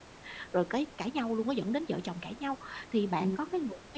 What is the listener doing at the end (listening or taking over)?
listening